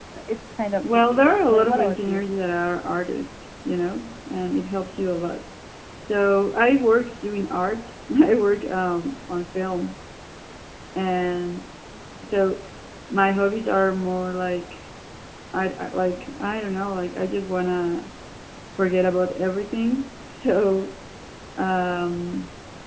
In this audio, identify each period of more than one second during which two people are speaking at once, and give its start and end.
0.8-2.2

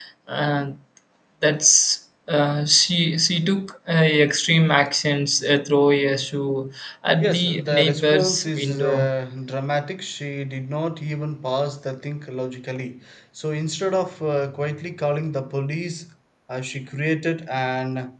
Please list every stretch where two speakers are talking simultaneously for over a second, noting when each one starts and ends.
7.2-9.1

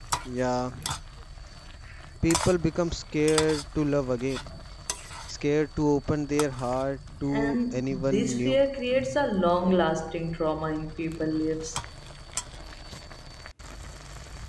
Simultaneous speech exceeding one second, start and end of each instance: 7.3-8.6

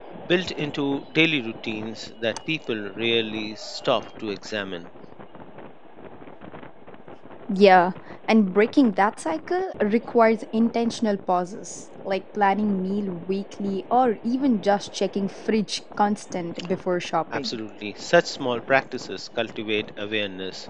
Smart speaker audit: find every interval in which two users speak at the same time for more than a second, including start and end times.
none

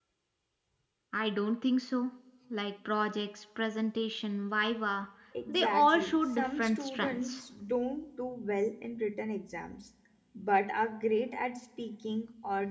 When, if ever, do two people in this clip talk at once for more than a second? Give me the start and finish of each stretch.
5.5-7.4

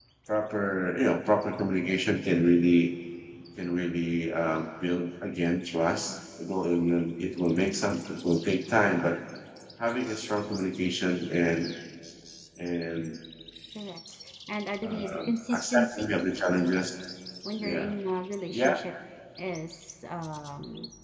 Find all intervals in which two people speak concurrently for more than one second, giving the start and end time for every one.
14.8-16.1

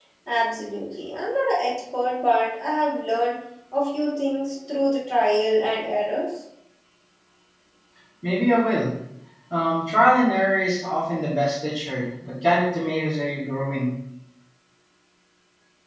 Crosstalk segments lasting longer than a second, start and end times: none

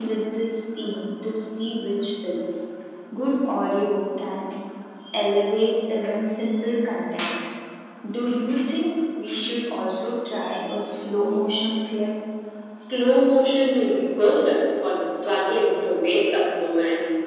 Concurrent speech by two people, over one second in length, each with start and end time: none

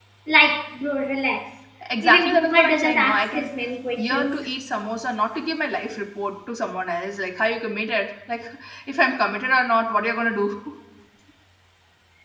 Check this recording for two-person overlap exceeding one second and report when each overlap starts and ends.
2.0-3.4

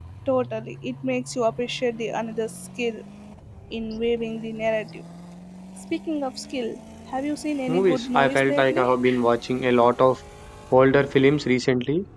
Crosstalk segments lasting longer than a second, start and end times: 7.7-8.9

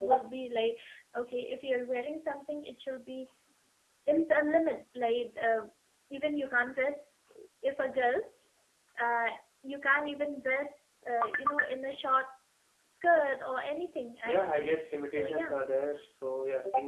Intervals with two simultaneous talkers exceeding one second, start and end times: 14.2-15.6

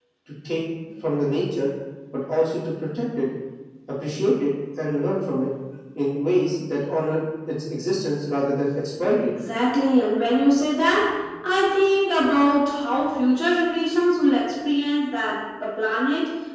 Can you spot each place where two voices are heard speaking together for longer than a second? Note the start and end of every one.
none

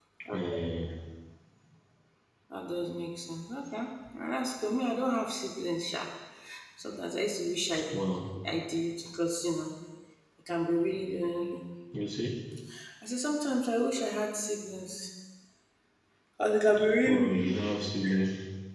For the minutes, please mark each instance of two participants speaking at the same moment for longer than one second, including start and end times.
none

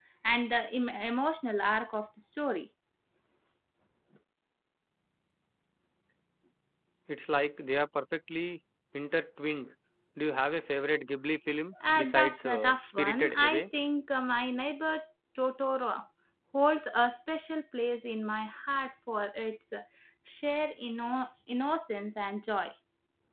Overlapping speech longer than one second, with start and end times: 11.9-13.6

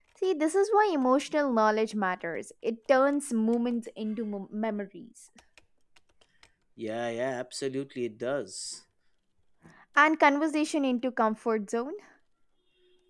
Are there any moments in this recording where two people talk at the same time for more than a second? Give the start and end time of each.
none

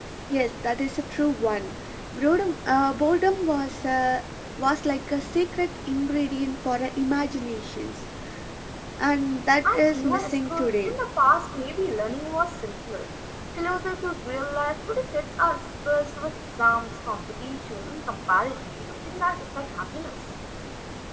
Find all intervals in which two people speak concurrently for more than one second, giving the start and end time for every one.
9.6-11.0

